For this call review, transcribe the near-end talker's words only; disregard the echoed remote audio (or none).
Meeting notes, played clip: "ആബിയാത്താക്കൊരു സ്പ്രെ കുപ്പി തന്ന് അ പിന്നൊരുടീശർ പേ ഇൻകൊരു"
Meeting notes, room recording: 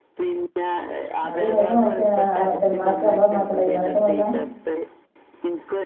അത് എങ്ങൻത്തെ മസ്യാണ് ആ മറ്റേമാക്ക് അമ്മ അമ്മാക്ക് ഉണ്ടായിന്ന് അങ്ങനത്തെ മളിലാ